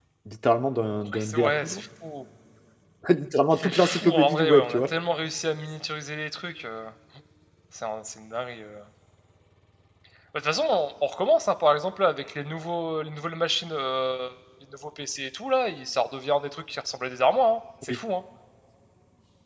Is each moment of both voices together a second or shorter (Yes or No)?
No